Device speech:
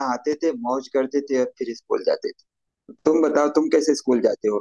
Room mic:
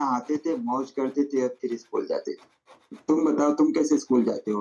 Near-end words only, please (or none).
none